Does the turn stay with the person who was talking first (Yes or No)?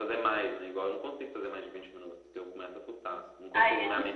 No